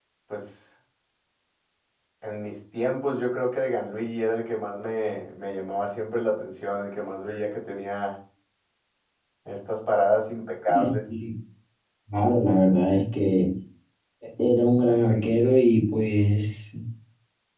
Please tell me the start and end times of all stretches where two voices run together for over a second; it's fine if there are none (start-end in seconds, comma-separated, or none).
none